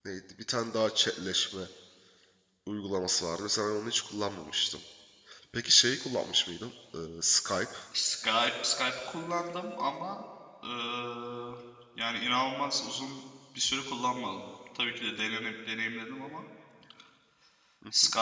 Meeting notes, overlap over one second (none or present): none